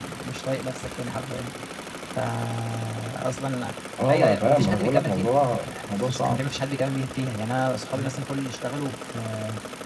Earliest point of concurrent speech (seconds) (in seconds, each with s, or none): 4.1 s